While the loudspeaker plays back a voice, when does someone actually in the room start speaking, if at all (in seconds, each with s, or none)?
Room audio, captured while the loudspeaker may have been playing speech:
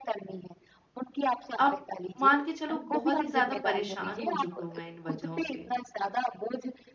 1.6 s